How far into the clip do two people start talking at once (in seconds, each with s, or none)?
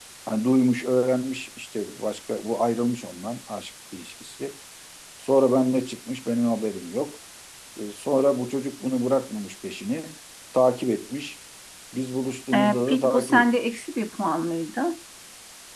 12.5 s